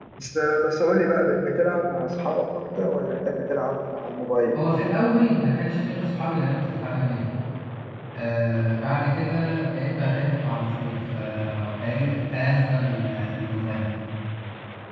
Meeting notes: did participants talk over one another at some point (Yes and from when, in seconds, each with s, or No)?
No